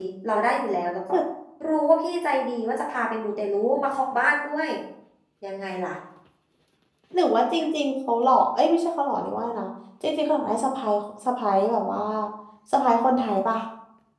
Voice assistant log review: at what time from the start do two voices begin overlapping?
none

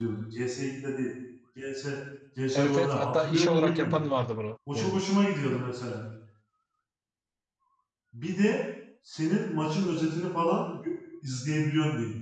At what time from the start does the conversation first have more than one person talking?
2.5 s

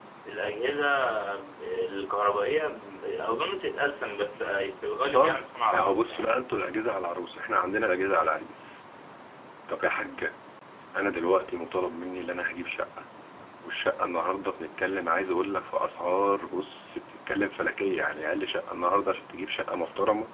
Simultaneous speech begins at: 5.1 s

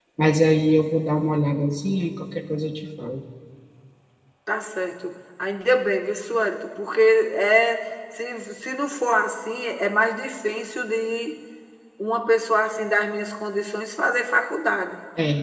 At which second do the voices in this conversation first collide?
none

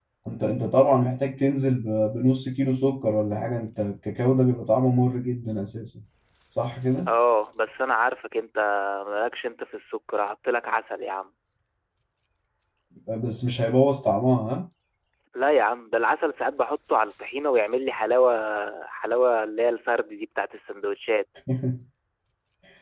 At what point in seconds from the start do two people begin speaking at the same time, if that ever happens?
none

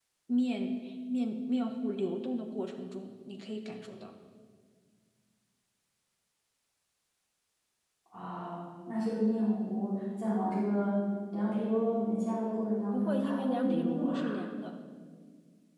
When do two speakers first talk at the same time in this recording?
12.9 s

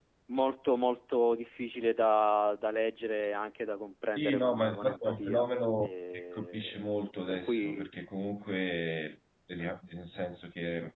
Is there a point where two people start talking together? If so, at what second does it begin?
4.2 s

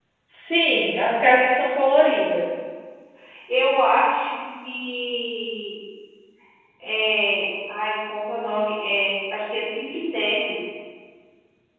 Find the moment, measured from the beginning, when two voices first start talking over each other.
none

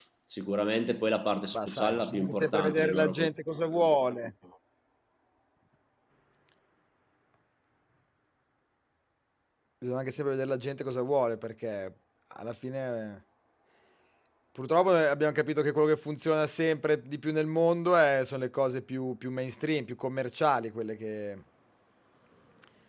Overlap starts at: 1.5 s

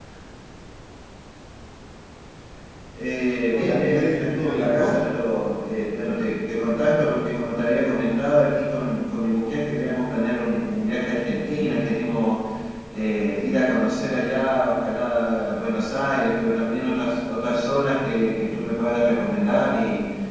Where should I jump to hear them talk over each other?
3.5 s

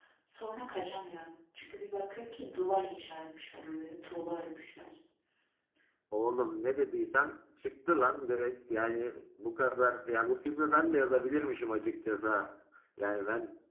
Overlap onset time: none

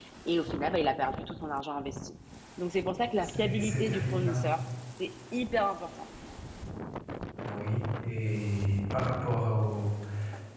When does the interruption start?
3.2 s

